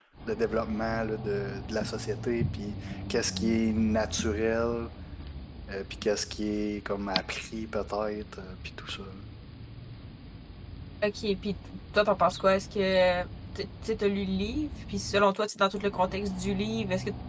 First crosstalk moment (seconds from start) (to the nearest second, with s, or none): none